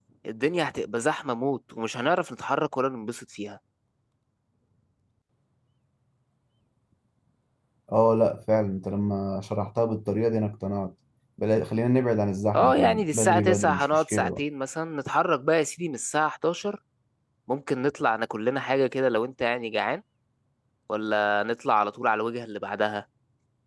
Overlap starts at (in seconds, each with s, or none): 12.5 s